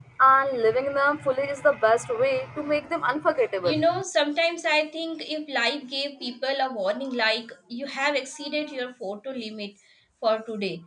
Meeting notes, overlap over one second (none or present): none